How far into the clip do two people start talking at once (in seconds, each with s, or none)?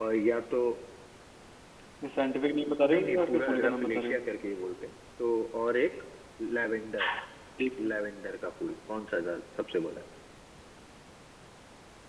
2.9 s